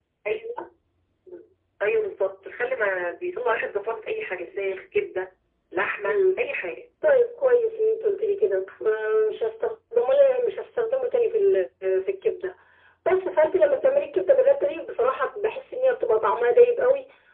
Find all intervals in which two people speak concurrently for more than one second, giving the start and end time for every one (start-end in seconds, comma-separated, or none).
none